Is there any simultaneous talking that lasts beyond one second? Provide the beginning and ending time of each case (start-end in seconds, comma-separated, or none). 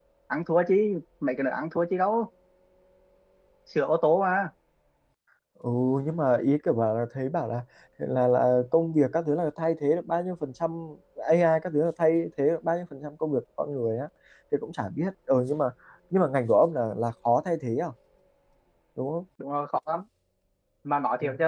none